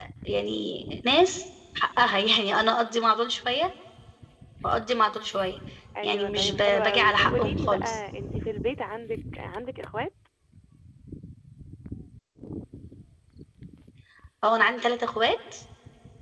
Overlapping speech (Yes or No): Yes